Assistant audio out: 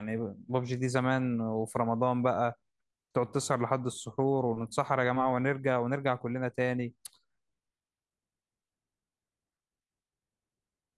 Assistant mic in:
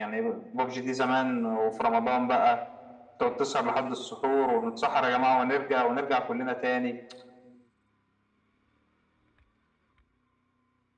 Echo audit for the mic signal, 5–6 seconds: echo only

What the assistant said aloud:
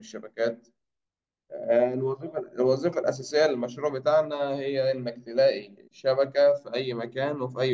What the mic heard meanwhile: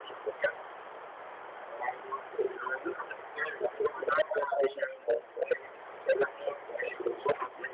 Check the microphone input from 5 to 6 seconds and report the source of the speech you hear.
echo only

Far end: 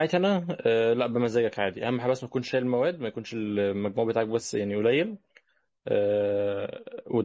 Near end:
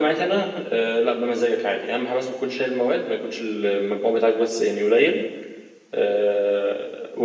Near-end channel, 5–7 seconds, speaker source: echo only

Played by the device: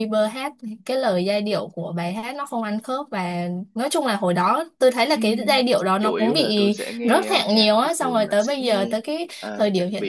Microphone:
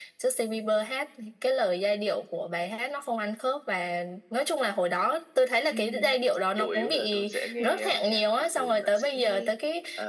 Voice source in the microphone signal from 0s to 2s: echo only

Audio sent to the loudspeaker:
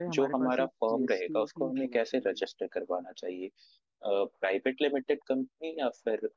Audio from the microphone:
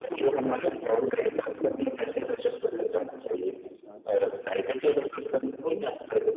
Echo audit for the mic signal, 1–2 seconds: both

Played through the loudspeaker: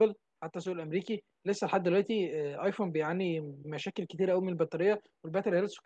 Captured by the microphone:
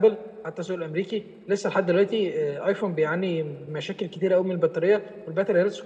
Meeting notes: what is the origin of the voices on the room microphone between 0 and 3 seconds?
echo only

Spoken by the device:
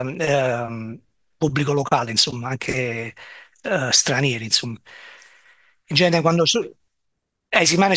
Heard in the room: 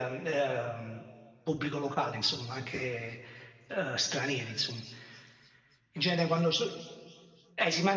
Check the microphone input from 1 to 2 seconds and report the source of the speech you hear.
echo only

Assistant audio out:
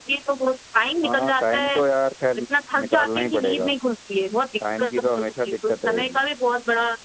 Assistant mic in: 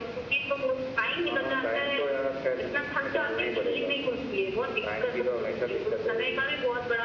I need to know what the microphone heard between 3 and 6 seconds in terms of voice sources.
echo only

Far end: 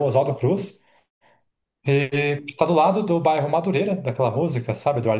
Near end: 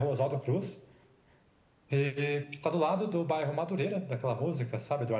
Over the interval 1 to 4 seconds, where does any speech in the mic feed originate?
echo only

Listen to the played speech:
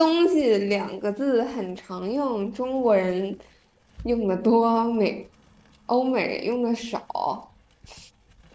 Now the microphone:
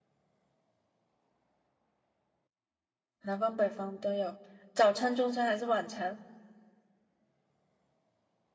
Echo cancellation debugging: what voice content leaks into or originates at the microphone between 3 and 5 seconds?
user only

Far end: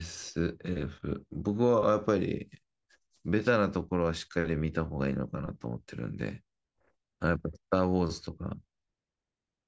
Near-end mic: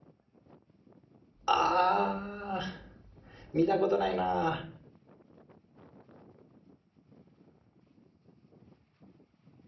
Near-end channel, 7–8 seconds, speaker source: neither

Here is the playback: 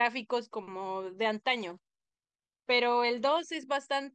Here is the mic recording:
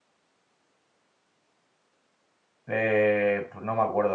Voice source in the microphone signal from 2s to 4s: user only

